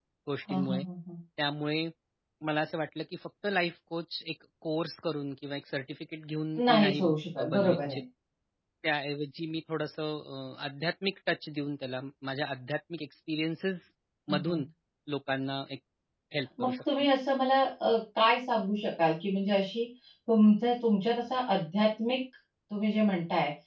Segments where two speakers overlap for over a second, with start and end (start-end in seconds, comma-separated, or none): 6.7-8.0